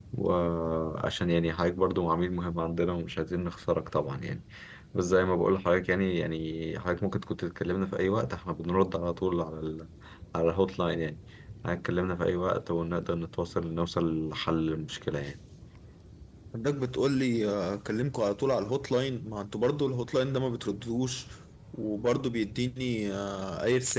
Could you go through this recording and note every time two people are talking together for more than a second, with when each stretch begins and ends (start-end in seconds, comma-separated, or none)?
none